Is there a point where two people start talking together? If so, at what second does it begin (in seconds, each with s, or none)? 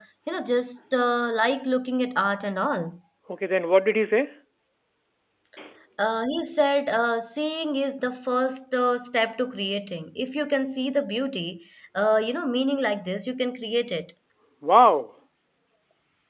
none